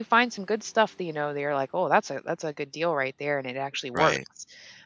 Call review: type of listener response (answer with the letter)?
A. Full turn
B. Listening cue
B